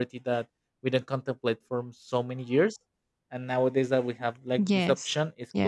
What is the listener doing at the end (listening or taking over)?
taking over